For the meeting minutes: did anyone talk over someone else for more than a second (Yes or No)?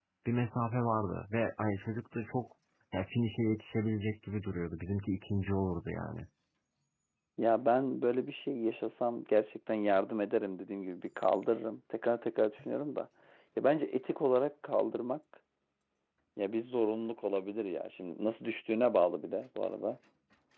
No